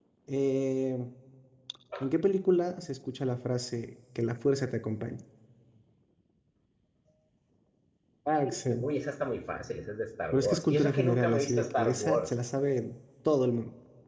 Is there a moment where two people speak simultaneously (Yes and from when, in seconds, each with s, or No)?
Yes, from 10.3 s